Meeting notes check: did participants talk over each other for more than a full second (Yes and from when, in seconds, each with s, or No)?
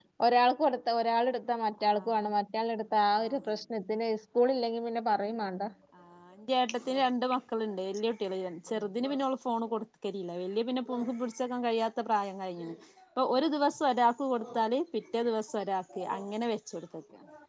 No